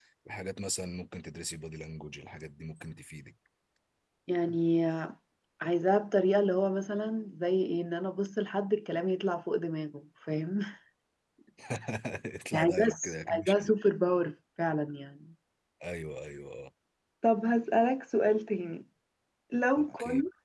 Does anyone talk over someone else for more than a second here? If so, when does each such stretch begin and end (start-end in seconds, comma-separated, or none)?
12.5-13.7